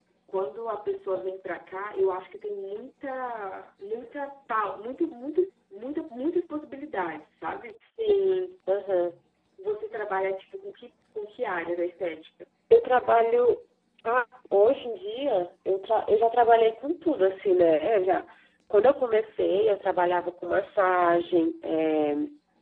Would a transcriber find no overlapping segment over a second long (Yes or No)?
Yes